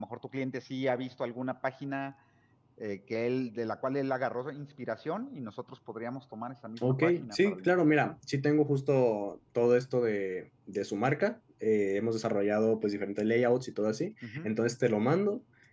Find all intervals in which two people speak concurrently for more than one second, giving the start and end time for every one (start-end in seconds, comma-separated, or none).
6.8-8.1